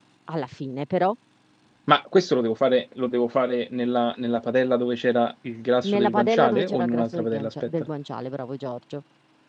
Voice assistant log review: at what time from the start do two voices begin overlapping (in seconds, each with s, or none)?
5.8 s